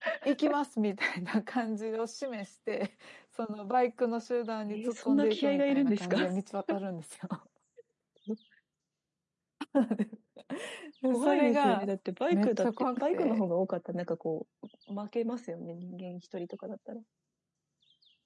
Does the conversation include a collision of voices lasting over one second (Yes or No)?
Yes